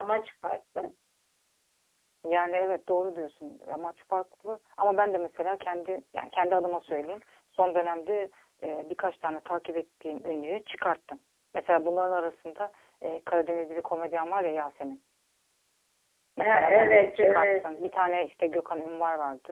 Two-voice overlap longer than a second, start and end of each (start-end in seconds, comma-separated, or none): 16.4-17.7